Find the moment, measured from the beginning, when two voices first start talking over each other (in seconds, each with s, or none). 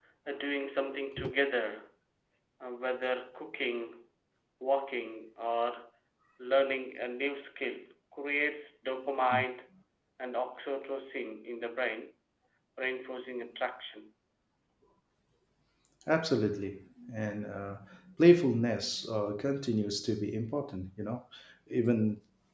none